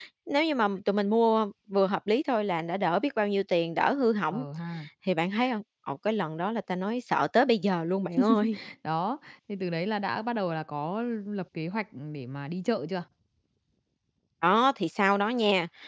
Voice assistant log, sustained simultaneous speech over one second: none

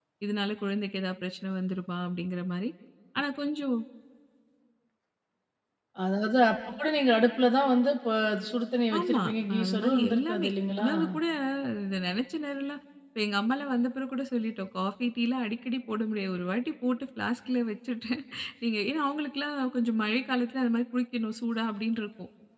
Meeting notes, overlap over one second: present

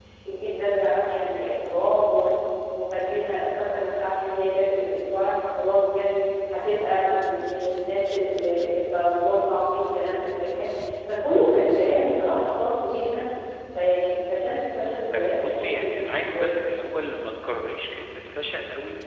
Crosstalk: present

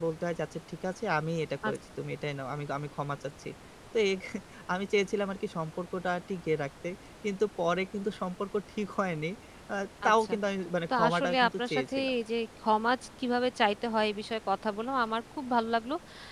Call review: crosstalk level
present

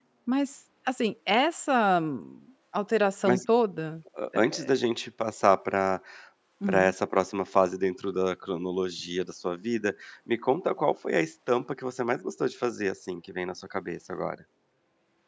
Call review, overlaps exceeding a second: none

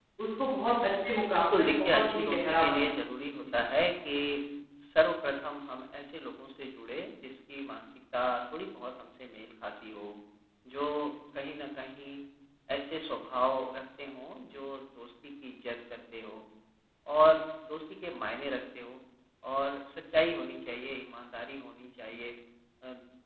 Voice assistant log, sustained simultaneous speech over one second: present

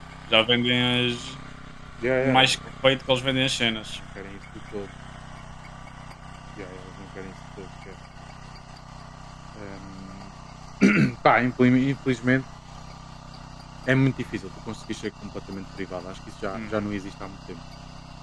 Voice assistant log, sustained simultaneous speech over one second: none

